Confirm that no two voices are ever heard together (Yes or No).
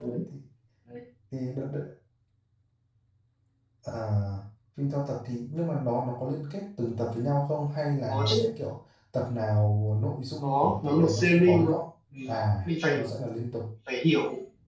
No